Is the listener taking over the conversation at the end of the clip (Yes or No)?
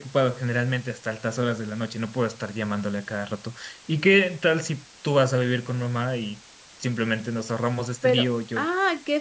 Yes